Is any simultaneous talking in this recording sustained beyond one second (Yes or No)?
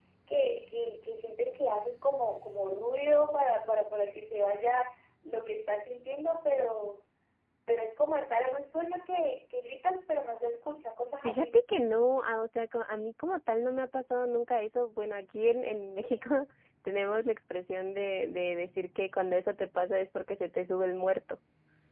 No